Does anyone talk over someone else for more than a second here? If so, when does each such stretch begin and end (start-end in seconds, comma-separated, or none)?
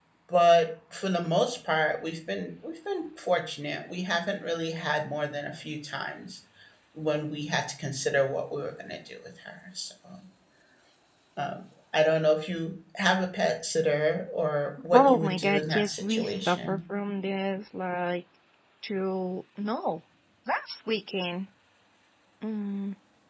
14.9-16.8